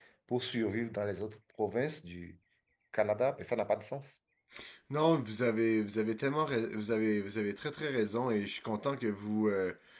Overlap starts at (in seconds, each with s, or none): none